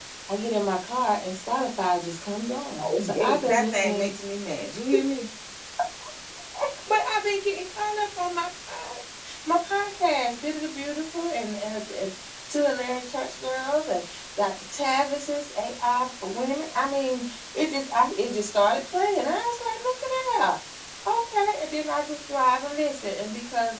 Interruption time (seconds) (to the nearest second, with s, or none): 3 s